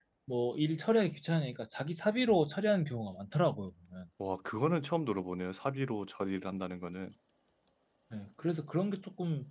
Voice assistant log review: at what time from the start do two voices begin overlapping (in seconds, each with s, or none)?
none